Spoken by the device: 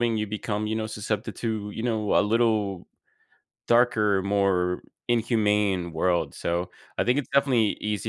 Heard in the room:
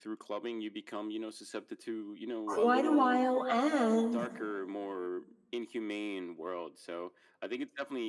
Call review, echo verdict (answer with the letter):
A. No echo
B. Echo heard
B